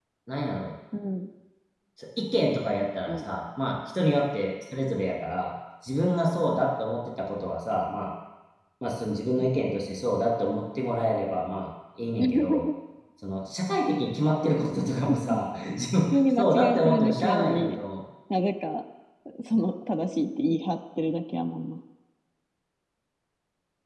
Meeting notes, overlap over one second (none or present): present